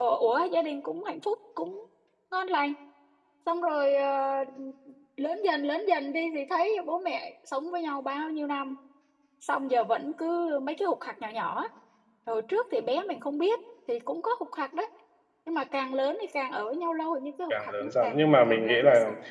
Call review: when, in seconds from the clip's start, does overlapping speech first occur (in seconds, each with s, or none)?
17.5 s